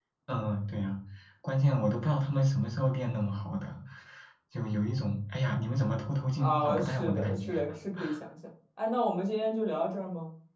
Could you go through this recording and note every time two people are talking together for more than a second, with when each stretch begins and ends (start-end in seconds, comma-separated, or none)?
6.4-7.6